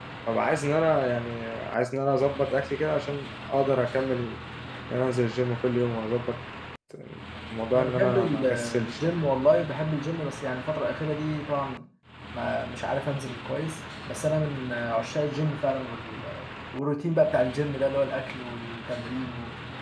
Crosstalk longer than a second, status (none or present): present